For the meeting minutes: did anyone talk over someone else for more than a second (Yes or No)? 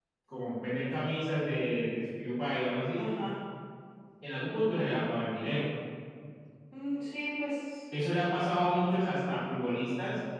No